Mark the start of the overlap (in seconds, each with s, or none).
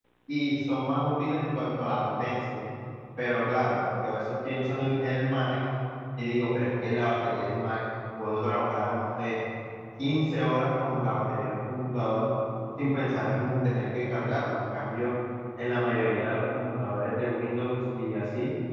none